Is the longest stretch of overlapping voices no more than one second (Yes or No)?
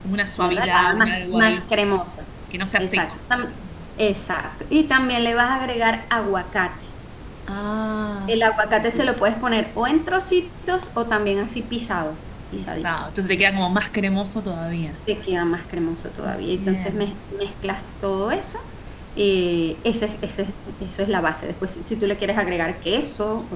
No